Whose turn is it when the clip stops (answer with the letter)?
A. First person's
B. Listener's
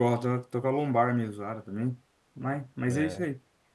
A